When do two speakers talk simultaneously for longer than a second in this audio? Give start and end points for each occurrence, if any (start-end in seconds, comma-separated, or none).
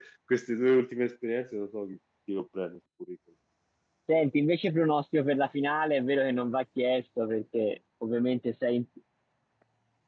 none